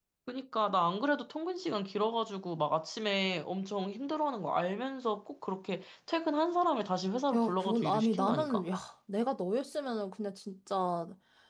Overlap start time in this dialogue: 7 s

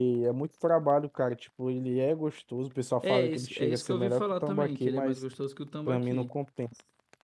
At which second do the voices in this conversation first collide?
3 s

